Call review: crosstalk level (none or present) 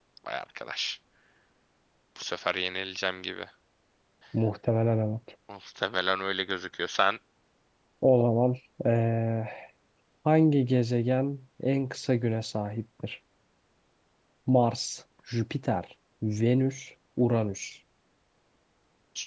none